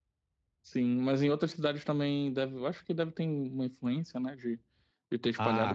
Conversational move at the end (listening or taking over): taking over